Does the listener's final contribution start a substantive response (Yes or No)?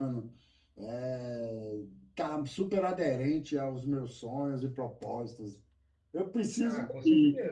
Yes